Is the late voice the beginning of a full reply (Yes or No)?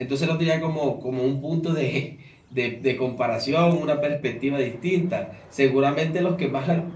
No